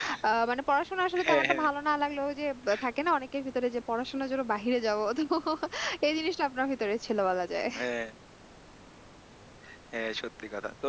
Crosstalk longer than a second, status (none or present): none